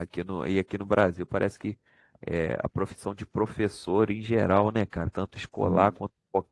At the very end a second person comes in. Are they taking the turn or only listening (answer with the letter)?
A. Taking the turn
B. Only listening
B